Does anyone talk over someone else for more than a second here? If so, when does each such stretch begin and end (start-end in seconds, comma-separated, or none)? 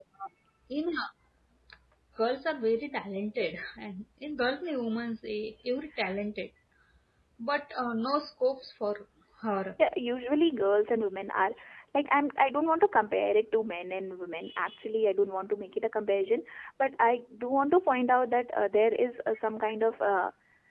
none